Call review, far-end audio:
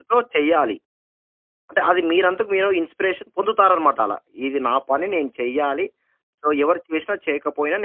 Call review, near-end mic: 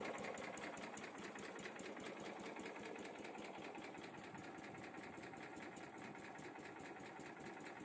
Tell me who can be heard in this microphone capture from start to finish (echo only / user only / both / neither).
neither